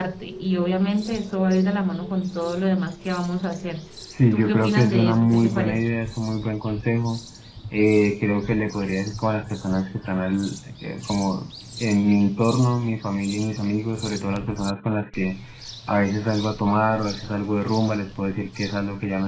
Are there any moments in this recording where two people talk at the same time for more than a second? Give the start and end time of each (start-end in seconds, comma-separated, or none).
4.3-5.8